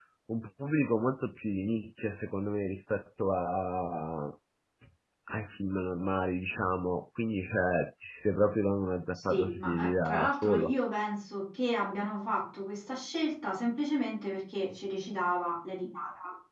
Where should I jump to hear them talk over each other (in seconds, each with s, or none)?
9.1 s